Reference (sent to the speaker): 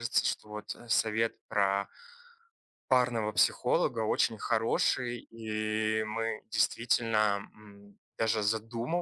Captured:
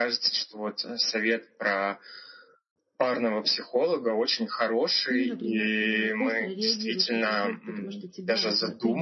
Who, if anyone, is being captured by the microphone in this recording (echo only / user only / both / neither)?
both